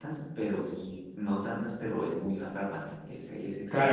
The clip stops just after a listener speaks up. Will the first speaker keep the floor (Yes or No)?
No